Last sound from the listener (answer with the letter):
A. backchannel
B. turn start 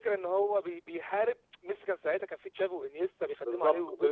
B